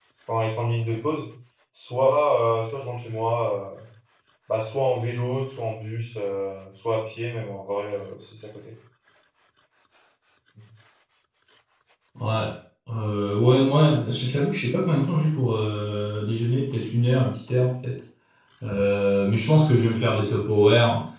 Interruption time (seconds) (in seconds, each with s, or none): none